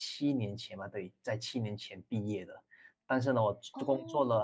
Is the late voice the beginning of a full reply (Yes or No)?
No